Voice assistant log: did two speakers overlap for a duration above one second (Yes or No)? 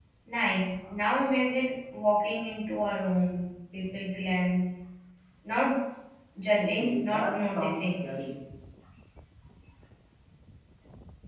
Yes